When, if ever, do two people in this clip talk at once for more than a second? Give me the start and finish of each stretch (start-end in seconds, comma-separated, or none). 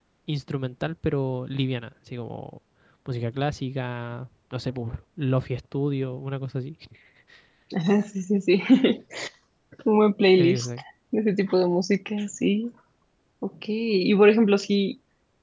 none